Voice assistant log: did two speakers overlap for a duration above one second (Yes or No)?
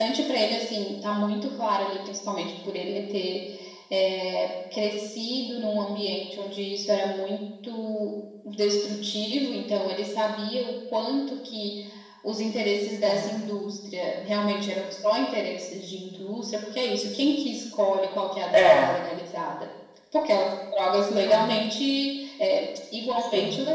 No